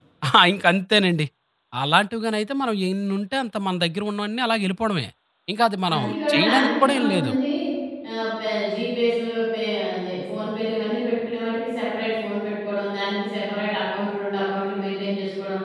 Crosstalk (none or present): present